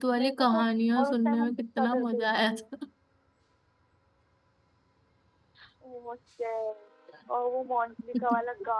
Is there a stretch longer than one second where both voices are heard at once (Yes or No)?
Yes